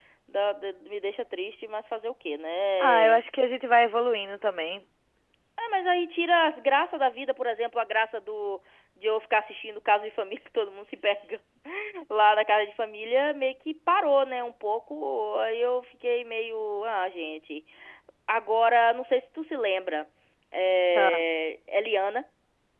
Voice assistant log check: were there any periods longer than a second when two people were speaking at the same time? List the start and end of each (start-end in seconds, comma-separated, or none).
none